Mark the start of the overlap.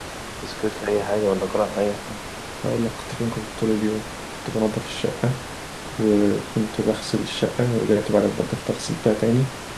none

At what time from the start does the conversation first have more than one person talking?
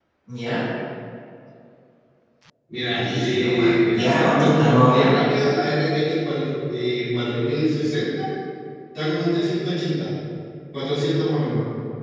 3 s

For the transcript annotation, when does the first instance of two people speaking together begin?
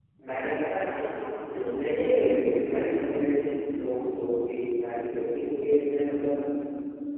2 s

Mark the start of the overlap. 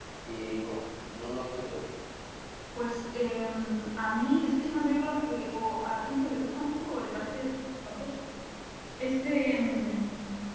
none

